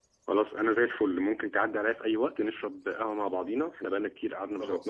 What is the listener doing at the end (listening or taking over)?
listening